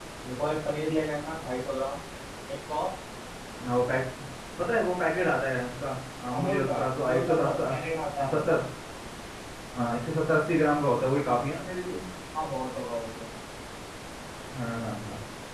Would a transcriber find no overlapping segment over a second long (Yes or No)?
No